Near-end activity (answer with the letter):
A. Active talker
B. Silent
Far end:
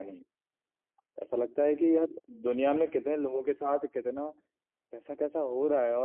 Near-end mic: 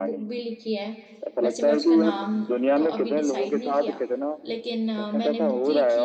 A